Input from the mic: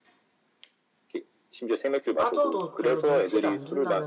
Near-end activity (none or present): present